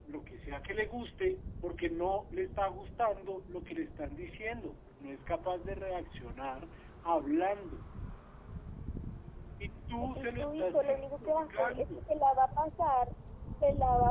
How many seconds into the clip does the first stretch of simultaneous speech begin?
10.2 s

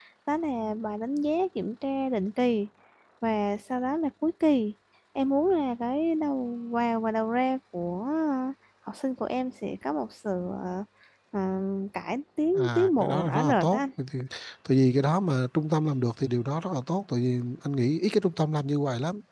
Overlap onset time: 12.6 s

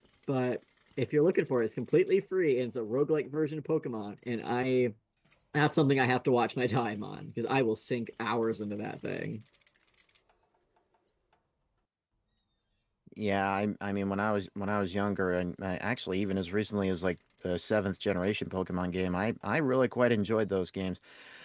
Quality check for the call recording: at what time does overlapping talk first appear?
none

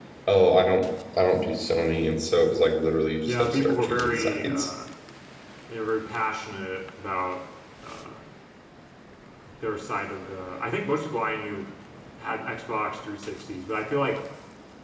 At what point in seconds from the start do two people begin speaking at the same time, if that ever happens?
3.3 s

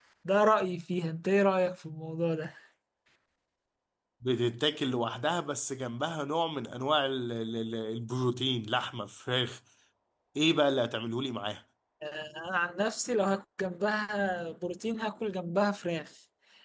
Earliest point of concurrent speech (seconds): none

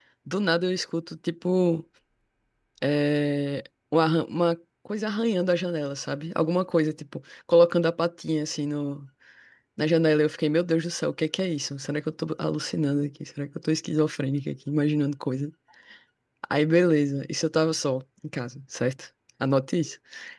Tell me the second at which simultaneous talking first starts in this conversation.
none

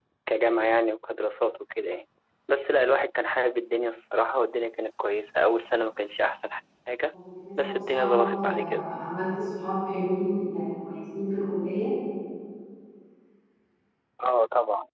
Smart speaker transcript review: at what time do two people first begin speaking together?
7.6 s

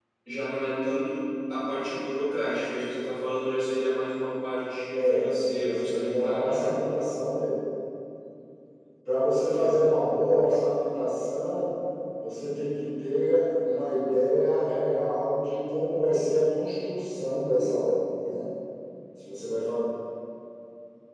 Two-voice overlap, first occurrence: 4.9 s

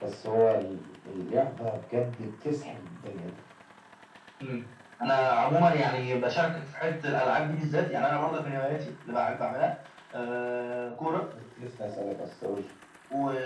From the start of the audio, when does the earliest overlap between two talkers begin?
none

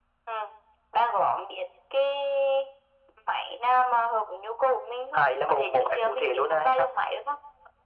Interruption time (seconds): 5.1 s

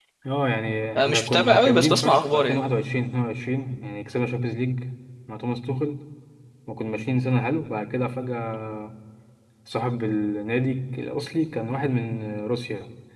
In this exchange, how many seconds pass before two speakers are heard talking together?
1.0 s

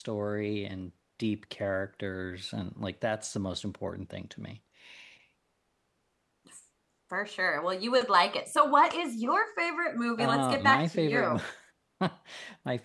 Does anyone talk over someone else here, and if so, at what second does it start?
10.2 s

